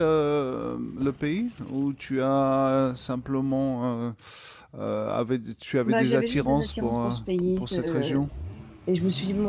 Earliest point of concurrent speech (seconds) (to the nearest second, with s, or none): 6 s